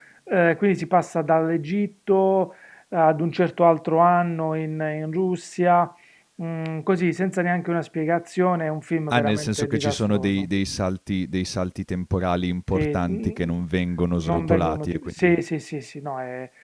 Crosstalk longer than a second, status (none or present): present